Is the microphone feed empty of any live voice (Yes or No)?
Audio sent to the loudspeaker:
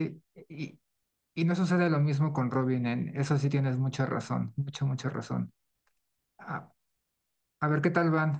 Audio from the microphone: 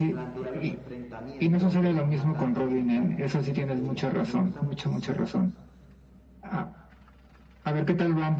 No